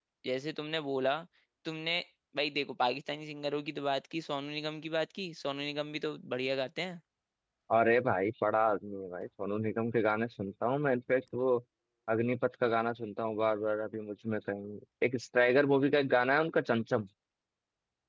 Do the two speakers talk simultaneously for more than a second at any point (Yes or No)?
No